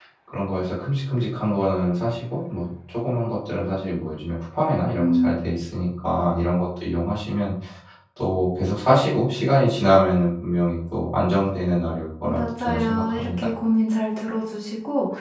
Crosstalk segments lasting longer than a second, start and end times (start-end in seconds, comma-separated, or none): 12.2-13.5